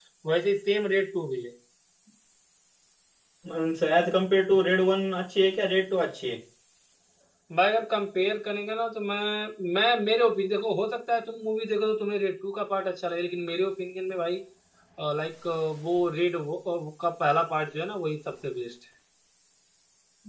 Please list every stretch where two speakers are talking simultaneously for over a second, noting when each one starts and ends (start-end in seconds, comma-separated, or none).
none